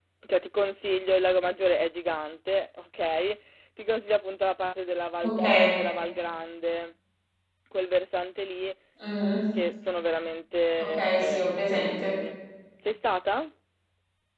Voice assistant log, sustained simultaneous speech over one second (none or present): present